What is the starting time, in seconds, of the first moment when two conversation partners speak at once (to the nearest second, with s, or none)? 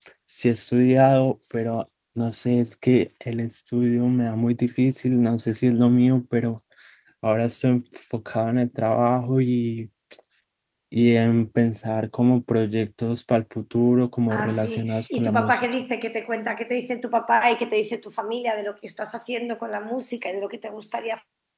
14 s